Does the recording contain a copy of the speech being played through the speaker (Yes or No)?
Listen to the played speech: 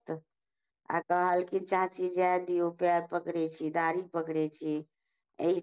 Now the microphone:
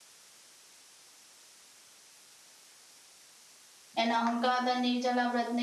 No